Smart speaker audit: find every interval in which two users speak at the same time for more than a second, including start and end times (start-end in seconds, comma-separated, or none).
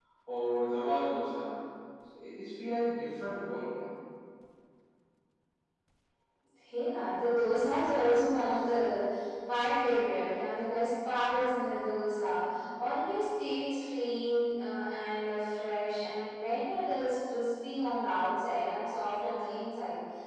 none